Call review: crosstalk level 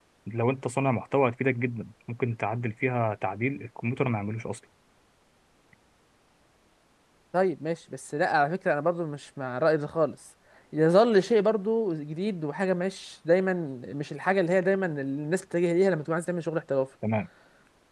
none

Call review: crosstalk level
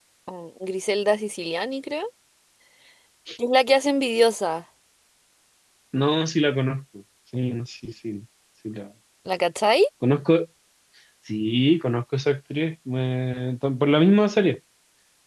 none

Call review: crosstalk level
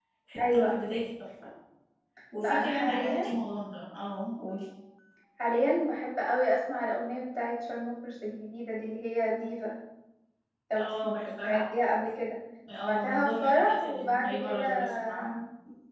present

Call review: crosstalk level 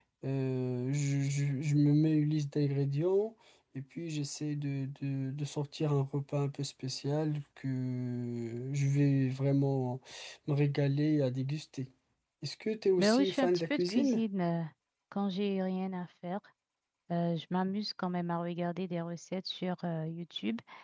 present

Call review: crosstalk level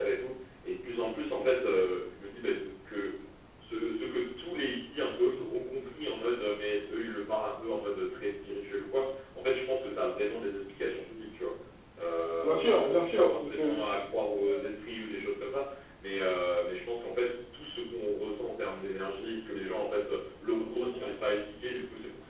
present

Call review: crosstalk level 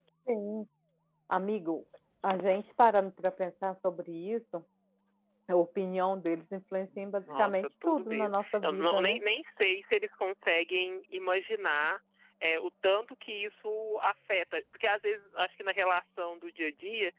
present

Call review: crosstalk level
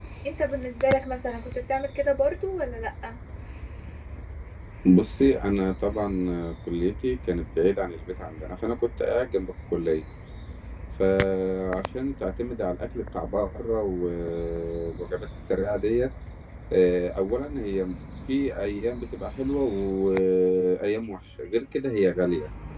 none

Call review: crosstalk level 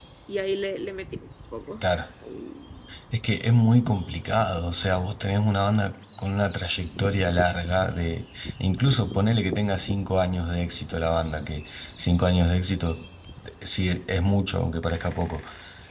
none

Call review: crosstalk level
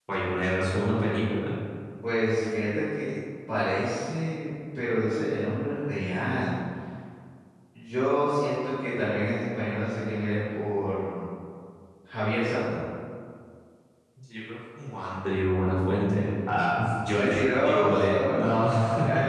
present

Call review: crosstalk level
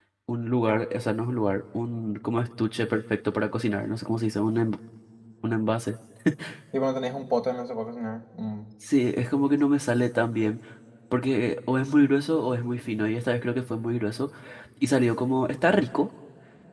none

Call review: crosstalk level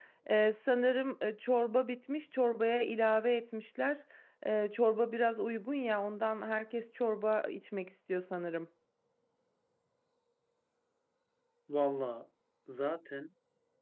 none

